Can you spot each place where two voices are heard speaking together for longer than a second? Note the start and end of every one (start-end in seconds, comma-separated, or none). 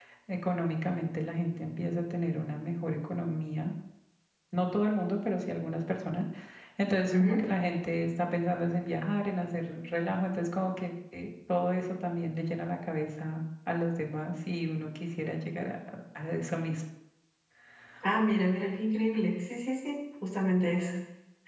none